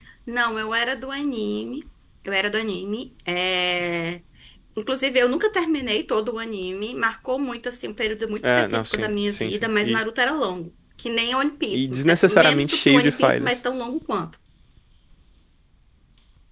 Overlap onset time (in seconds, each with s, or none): 8.4 s